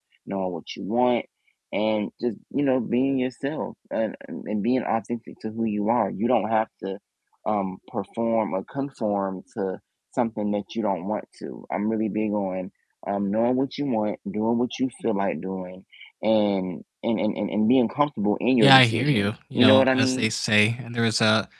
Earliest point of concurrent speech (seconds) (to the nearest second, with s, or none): 19 s